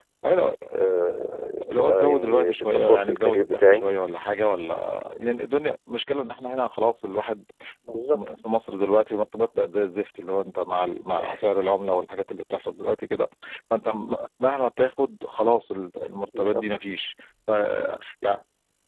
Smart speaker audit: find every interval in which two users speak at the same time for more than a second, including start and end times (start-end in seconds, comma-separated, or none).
1.8-3.9